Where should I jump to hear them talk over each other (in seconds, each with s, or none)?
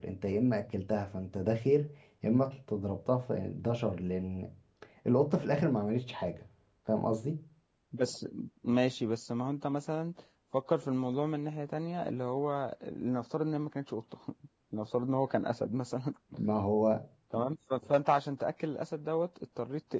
none